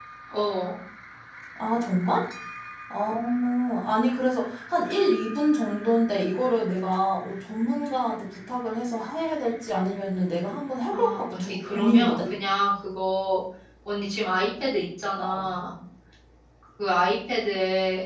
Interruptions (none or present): present